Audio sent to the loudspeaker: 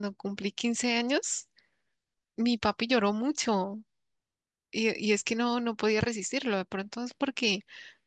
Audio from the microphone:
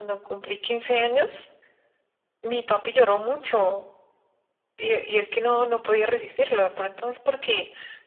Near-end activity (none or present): none